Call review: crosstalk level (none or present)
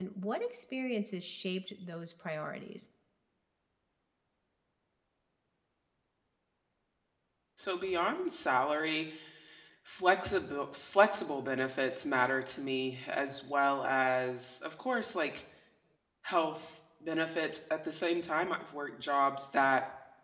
none